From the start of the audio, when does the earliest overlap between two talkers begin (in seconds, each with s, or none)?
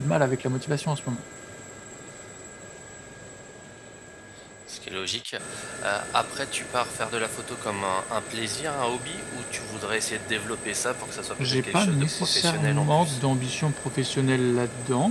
11.4 s